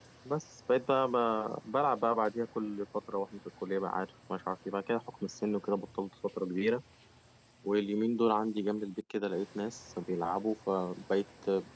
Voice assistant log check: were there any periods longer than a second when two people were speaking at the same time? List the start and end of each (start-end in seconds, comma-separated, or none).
none